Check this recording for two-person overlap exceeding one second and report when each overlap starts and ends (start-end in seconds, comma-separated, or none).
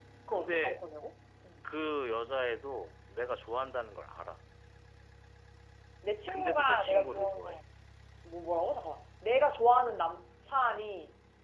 6.3-7.6